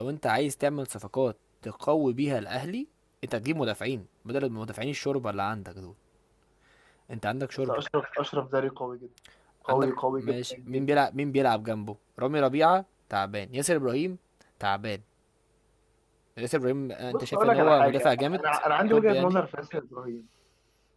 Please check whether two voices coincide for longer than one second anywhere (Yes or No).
Yes